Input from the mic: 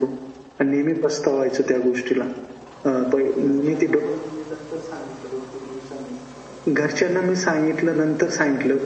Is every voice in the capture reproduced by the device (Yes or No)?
No